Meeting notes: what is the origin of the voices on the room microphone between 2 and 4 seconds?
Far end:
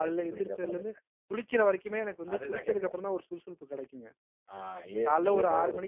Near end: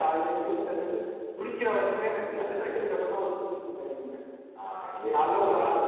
echo only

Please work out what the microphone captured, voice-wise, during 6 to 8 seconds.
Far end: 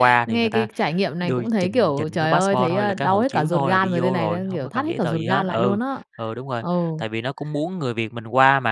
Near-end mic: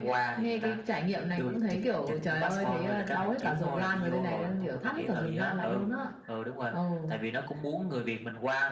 echo only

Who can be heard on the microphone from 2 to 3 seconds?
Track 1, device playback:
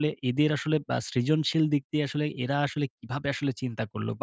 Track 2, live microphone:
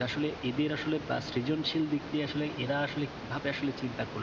echo only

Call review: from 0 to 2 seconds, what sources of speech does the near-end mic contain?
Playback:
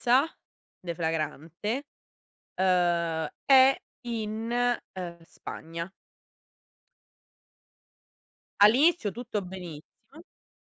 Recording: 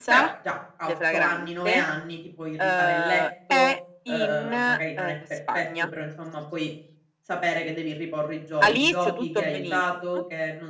both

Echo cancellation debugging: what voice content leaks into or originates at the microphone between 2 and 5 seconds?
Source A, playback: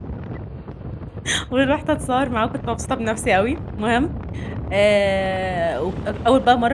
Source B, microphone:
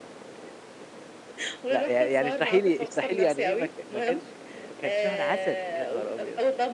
both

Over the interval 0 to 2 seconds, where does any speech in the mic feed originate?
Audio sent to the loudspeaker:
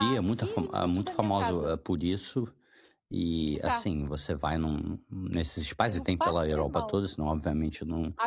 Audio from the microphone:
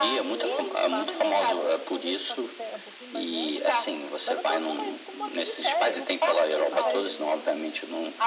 both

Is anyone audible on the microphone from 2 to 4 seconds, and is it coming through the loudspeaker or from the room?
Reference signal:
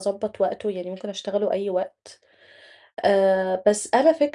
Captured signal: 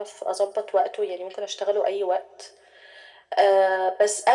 echo only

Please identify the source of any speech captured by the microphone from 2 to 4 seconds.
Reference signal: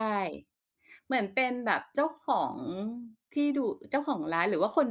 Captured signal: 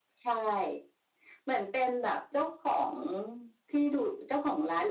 echo only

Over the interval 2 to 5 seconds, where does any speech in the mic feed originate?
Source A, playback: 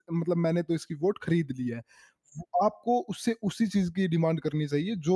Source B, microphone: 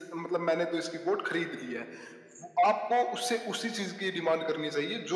echo only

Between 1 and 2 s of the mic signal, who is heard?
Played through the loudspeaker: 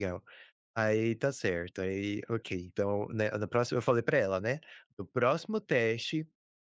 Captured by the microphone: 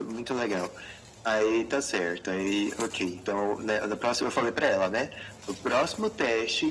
echo only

